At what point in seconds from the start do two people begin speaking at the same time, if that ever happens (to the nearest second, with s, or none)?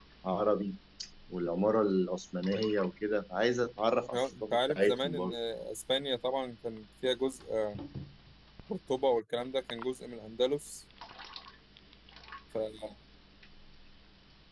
4 s